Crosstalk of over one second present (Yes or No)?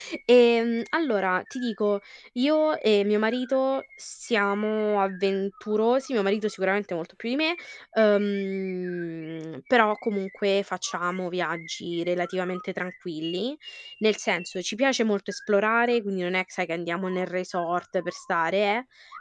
No